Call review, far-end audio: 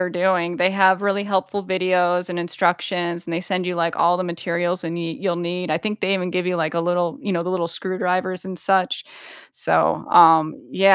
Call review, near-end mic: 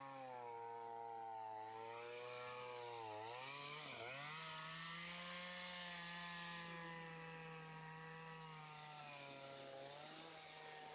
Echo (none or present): none